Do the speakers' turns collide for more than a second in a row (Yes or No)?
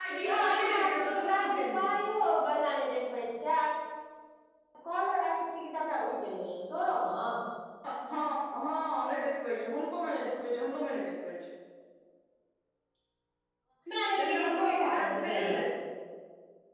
Yes